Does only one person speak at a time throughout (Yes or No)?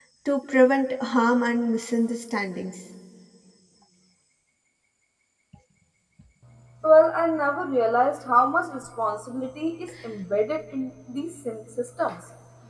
Yes